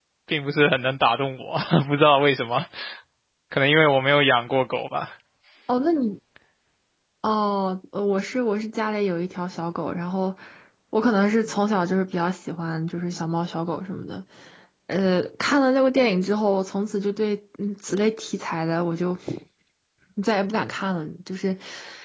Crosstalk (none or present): none